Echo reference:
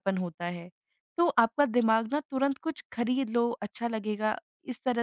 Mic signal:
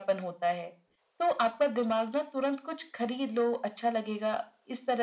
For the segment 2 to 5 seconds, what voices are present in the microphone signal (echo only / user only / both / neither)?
echo only